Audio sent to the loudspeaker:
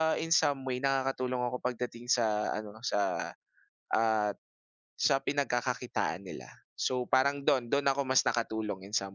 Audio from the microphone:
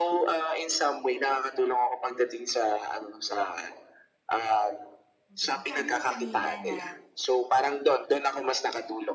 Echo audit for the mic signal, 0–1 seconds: echo only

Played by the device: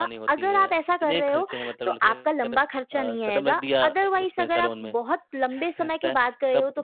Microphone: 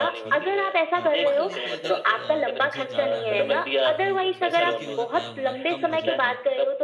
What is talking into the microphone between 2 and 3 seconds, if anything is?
both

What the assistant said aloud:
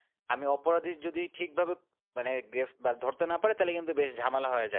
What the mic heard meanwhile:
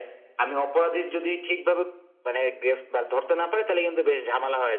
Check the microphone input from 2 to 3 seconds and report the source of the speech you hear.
echo only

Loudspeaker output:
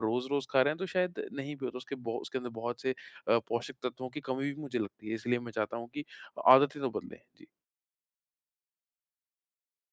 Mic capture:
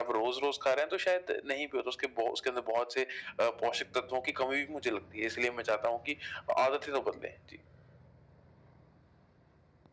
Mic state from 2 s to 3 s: echo only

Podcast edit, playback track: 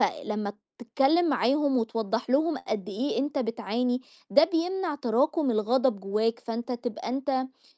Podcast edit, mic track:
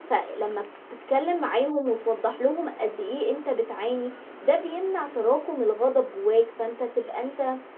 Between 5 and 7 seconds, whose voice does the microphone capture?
echo only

